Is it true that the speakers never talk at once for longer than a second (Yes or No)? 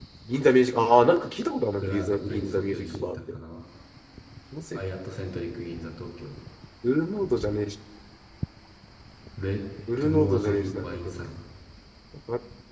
No